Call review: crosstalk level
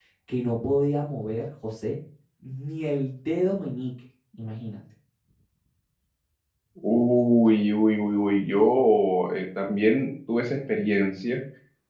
none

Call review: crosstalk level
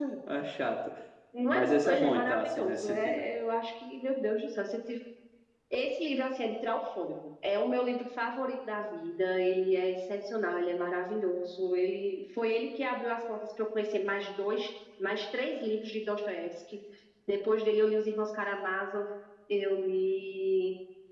present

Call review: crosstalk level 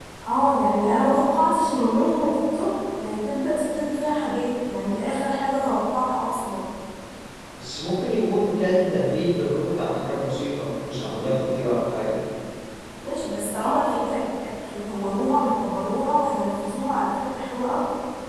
none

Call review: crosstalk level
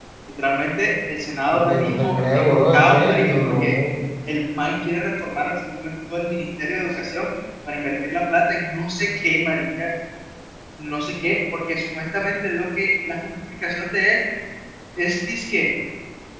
present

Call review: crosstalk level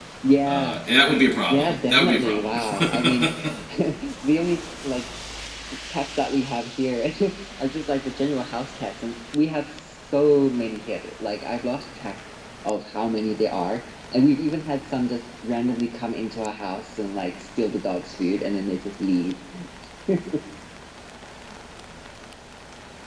present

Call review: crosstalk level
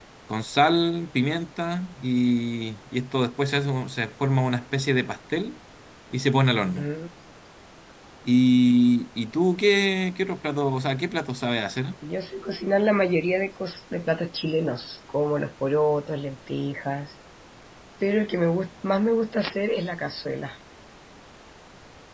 none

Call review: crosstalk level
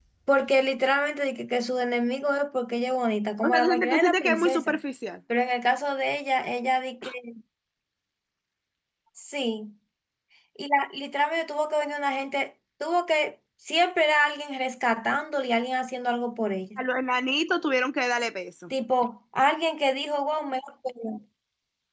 present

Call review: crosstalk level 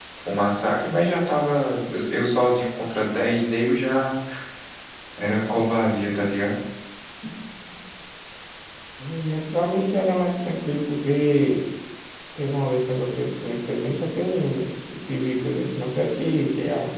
none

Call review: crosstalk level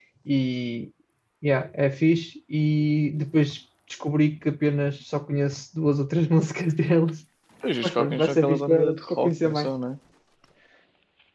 present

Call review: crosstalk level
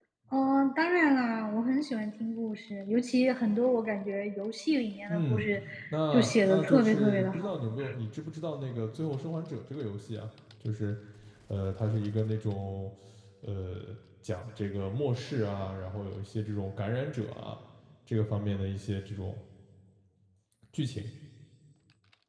present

